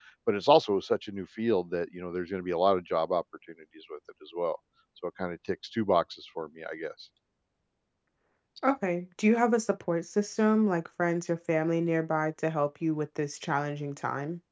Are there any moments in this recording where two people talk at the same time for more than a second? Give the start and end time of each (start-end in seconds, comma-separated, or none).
none